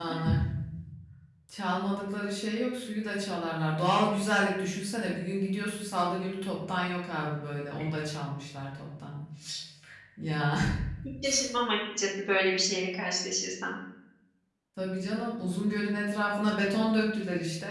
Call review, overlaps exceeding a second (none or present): none